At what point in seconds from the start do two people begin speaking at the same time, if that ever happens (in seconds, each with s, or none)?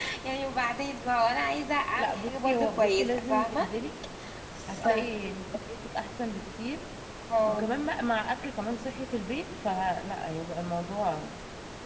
2.0 s